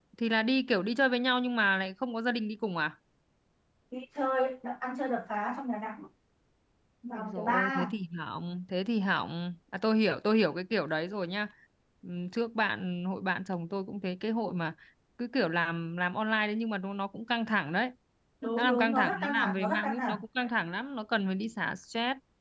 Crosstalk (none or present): present